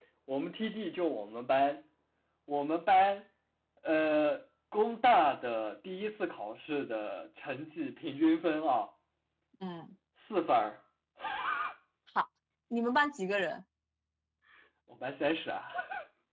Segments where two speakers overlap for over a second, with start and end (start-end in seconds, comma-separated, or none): none